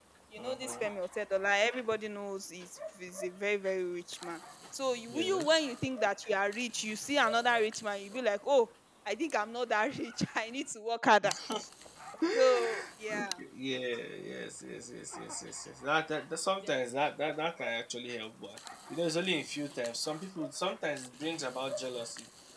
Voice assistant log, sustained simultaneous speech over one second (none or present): none